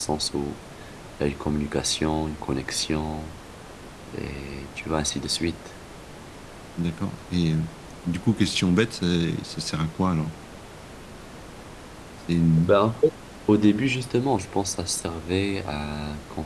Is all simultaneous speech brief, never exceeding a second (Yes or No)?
Yes